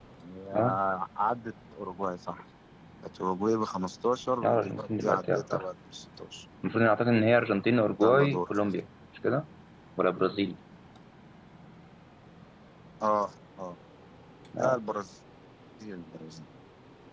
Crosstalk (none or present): present